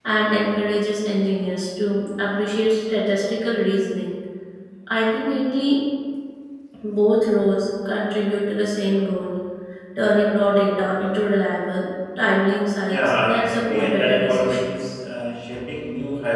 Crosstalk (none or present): present